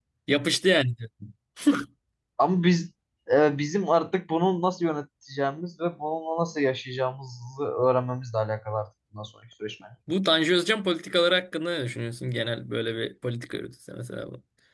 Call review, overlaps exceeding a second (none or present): none